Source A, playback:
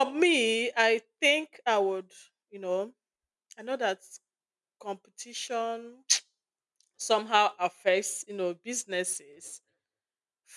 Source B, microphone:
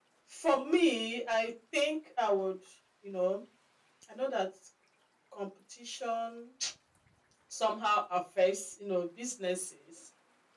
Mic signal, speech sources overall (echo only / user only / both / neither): echo only